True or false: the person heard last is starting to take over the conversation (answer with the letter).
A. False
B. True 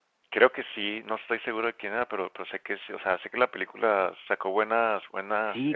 B